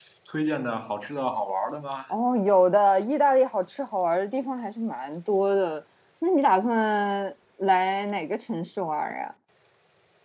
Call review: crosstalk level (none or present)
none